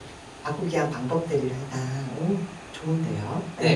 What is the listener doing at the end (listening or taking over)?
taking over